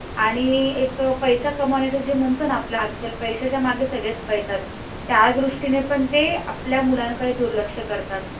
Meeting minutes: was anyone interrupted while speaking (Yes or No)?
No